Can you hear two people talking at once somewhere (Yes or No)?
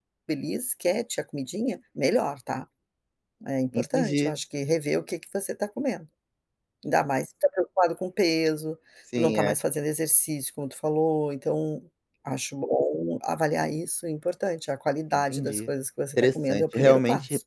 Yes